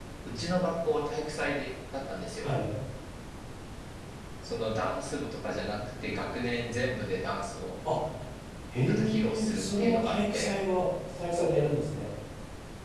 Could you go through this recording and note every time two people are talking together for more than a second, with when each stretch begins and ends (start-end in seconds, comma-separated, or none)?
8.8-10.5